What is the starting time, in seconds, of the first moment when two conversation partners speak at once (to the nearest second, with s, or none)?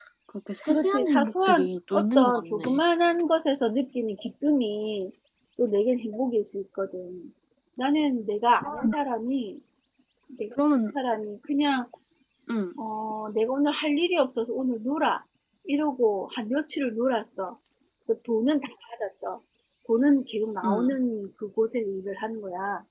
1 s